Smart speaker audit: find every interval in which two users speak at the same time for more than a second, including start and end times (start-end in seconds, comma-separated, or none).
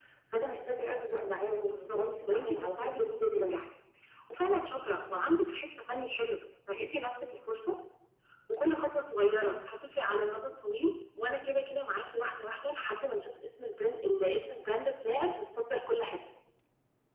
1.6-3.5